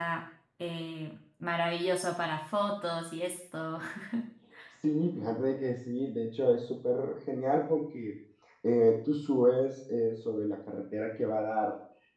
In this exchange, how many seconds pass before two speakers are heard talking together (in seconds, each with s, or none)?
none